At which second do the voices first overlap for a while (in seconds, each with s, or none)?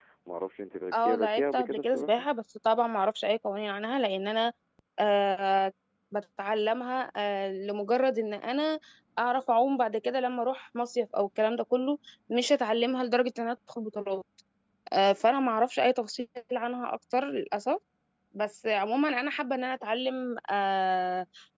0.9 s